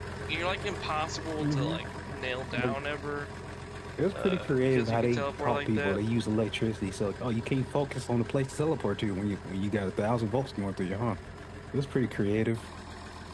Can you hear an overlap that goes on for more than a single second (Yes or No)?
Yes